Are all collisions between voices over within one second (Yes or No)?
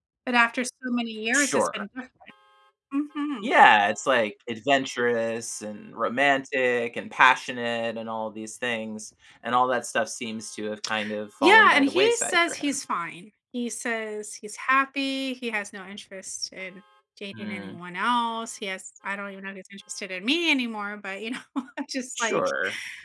No